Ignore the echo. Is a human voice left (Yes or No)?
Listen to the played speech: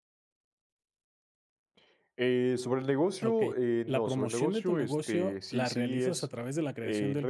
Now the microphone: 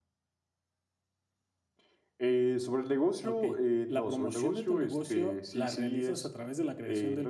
No